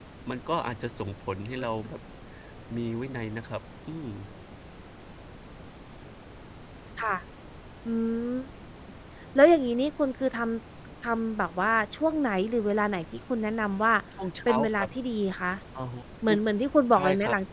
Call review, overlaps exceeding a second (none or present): none